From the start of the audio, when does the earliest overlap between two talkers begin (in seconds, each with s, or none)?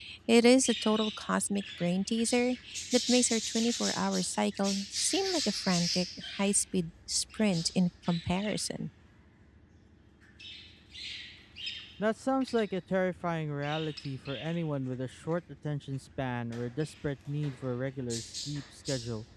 none